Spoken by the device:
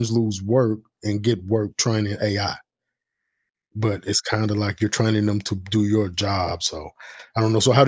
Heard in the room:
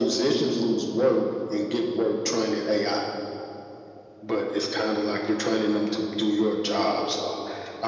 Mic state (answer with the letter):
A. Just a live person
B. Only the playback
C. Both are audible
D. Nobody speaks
B